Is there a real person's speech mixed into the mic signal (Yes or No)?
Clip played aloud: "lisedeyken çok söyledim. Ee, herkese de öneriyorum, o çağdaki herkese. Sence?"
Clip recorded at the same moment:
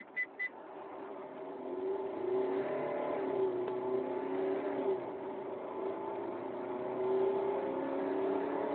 No